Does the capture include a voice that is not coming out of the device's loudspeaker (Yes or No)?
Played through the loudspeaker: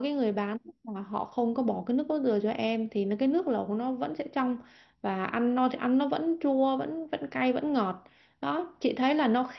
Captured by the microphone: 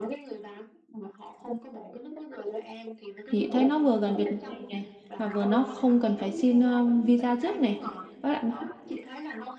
Yes